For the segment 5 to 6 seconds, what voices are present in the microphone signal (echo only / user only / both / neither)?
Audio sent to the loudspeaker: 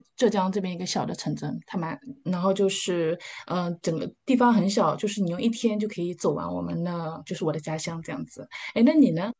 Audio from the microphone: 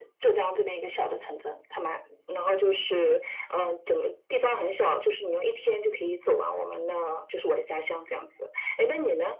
echo only